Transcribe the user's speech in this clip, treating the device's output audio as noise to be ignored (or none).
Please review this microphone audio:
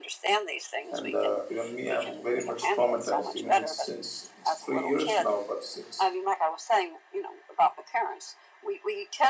And uh, even me, I'm very much traumatized. Even it's since it's three years now, but since